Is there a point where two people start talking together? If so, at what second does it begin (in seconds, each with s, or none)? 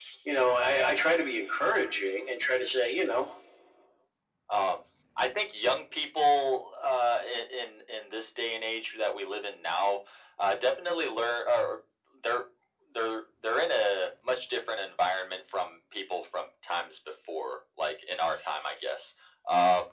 none